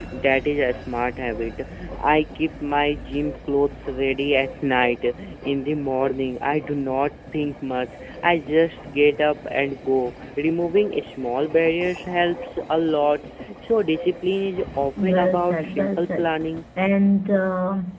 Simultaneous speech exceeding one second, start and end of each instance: 15.0-16.3

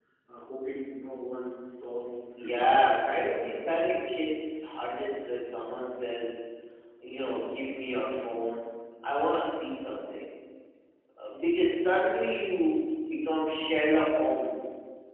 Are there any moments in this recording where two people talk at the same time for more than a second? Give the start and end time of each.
2.4-4.1

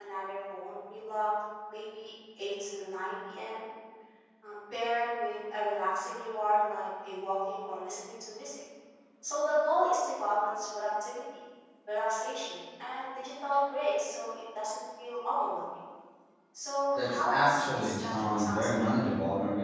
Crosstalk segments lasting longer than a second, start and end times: 16.9-18.9

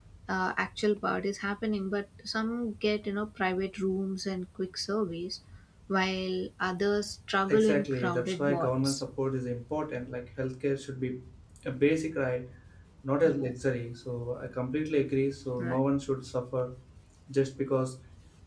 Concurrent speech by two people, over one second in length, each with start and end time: 7.5-9.0

